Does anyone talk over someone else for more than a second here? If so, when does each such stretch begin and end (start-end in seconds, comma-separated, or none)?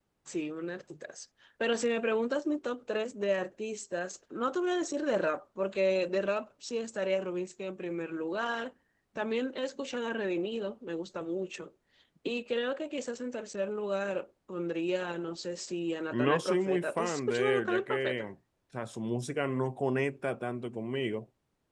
16.1-18.3